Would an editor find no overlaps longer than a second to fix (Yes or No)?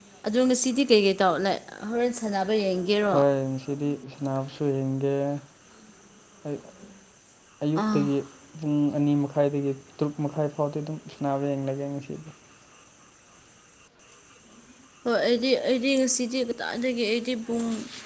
Yes